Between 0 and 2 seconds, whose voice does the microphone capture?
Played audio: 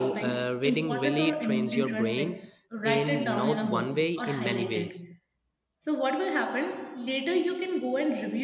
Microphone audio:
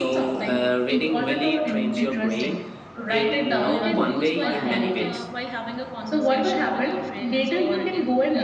echo only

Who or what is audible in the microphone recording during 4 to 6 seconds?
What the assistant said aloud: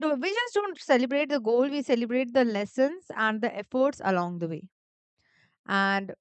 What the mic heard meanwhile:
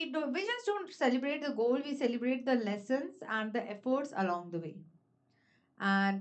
echo only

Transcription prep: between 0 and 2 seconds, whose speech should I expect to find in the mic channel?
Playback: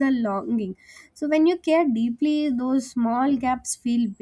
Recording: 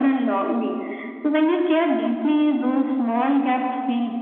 echo only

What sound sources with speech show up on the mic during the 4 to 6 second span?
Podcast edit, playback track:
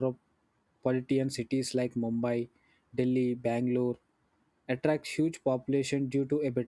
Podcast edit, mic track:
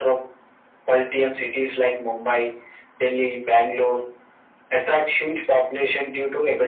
echo only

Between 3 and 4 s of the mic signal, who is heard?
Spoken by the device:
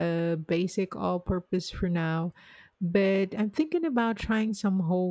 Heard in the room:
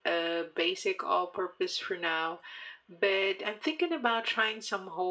echo only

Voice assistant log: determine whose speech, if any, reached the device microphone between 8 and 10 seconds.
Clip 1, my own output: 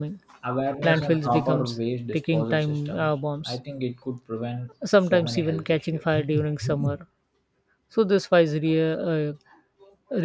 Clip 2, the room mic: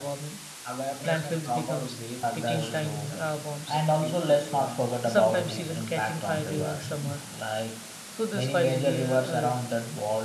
both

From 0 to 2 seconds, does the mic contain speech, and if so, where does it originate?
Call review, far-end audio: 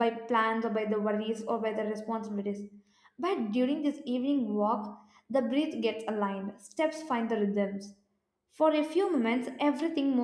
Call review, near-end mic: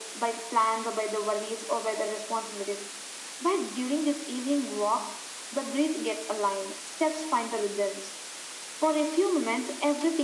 echo only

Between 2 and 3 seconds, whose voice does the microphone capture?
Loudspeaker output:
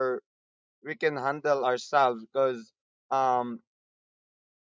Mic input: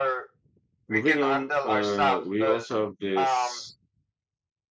both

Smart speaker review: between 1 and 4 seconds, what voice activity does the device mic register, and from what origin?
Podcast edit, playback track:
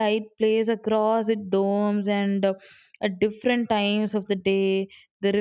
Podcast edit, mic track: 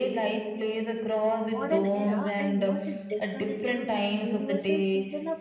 both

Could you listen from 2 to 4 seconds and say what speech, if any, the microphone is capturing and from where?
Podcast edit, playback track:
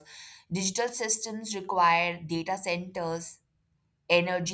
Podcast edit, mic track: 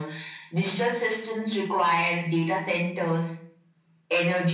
echo only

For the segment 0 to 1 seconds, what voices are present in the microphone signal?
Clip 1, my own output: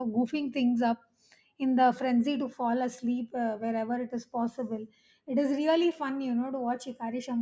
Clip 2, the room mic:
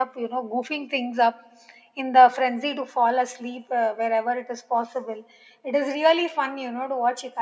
echo only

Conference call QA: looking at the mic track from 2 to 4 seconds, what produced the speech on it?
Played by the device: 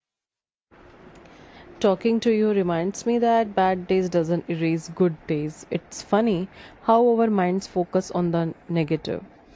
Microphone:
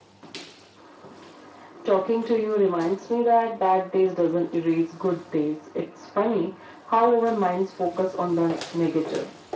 echo only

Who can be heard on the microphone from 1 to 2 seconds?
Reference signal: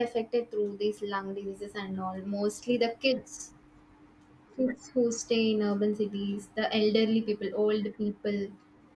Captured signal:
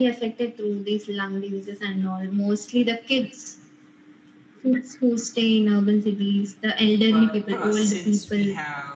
echo only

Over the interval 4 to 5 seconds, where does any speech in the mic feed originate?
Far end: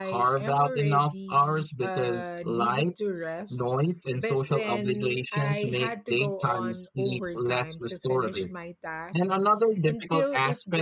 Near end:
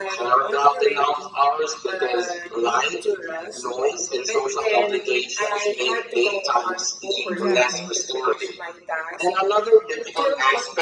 echo only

